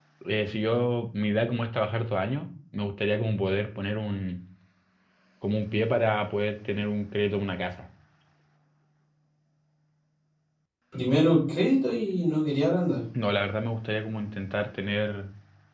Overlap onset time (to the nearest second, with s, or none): none